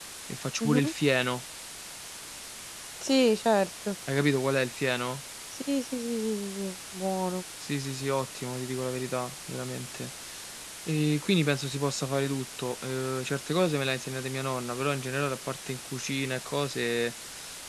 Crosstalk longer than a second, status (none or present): none